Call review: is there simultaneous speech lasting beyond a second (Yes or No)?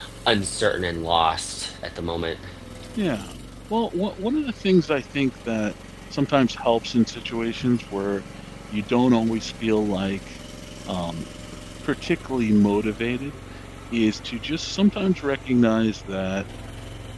No